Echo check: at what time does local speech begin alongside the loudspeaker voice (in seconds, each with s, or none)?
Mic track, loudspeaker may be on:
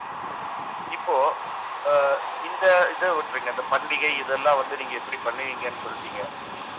none